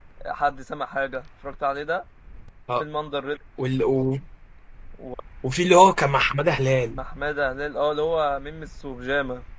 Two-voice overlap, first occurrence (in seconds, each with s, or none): none